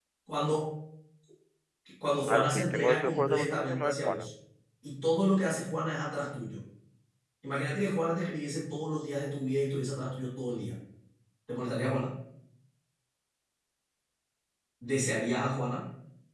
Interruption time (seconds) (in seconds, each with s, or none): 2.3 s